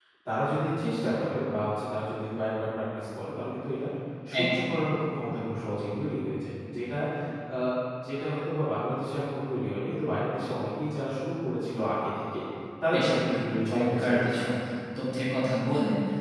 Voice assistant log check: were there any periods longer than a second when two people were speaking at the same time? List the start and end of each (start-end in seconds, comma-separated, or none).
12.9-14.3